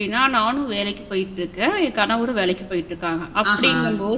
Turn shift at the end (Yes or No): No